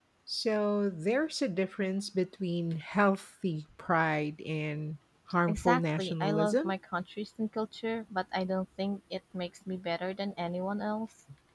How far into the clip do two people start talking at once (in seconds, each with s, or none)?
5.5 s